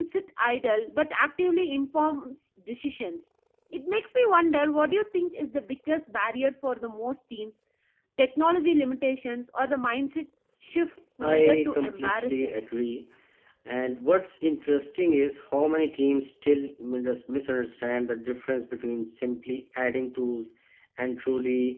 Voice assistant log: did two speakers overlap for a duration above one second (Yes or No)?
Yes